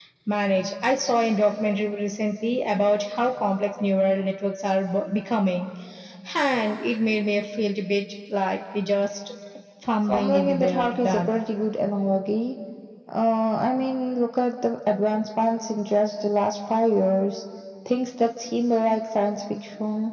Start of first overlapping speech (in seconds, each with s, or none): 10.0 s